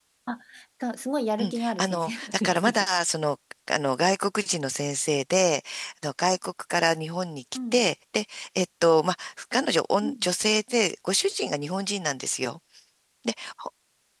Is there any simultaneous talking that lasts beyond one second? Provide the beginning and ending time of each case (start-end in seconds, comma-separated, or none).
1.4-2.7